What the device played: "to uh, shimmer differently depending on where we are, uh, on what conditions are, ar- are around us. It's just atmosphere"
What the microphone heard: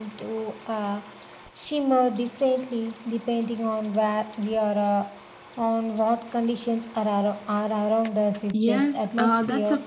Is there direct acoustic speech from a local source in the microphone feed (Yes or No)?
Yes